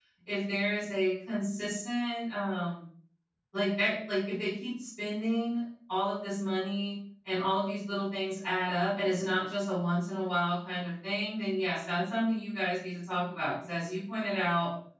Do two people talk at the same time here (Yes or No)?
No